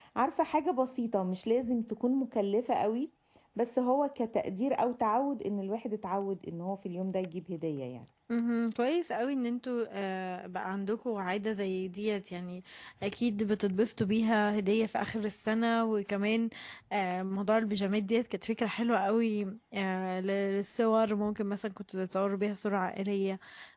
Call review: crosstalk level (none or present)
none